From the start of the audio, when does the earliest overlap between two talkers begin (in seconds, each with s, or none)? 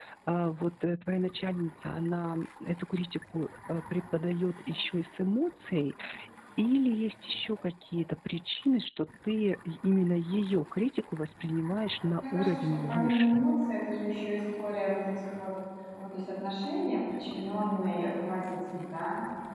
12.0 s